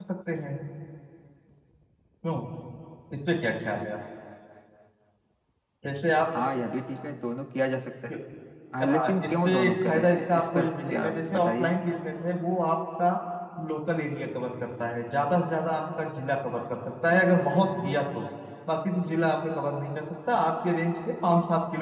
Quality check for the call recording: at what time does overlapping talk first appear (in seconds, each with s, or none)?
8.8 s